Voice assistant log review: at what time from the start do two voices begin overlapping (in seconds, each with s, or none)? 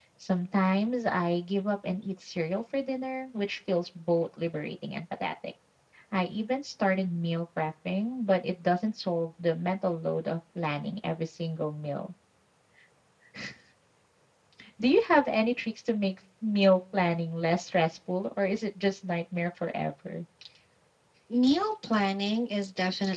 none